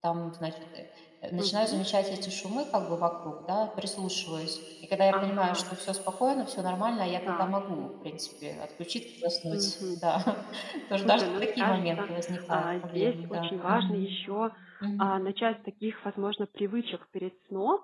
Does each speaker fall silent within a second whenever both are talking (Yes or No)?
No